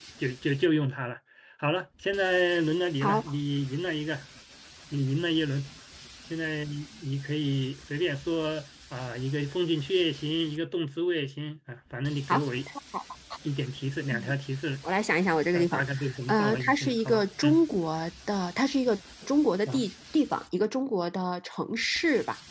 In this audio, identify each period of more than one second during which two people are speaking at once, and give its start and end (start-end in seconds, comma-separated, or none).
16.3-17.6